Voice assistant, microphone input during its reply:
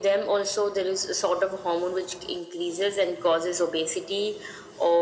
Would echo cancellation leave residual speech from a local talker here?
No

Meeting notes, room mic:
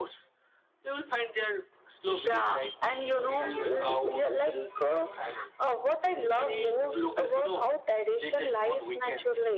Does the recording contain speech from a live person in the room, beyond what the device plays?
No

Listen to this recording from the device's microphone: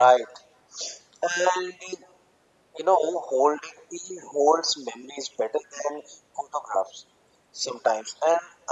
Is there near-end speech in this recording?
No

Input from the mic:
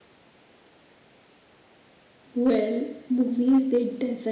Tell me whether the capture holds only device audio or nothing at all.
No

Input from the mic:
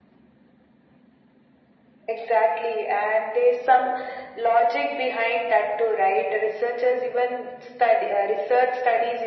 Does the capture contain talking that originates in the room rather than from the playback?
No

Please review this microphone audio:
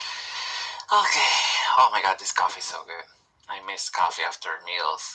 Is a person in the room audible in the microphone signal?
No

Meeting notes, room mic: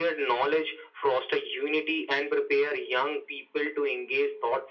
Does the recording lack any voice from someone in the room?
Yes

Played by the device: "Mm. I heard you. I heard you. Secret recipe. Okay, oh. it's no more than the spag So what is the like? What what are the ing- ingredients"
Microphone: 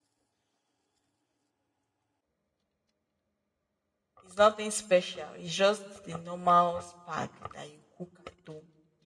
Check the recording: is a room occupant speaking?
Yes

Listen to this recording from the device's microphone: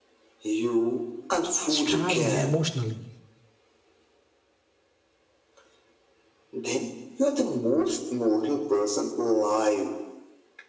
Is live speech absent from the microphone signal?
No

